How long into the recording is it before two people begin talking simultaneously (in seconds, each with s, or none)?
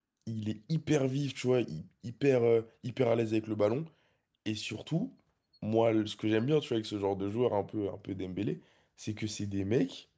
none